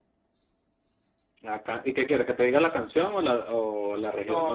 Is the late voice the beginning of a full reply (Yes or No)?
Yes